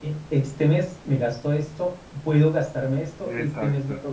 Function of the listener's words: listening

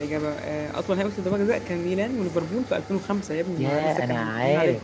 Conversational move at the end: taking over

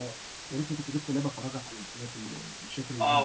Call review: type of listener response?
taking over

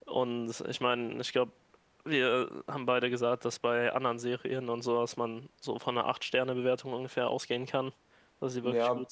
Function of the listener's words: taking over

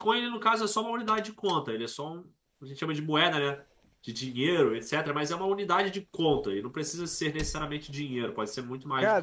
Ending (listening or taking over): taking over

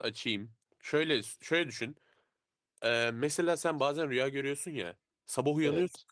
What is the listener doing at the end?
listening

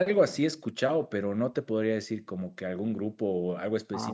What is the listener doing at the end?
taking over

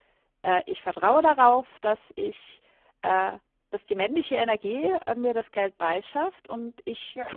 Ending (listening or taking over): listening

